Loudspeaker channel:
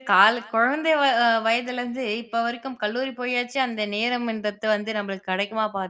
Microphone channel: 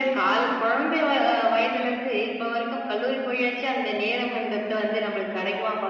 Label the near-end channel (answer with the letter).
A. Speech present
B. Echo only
B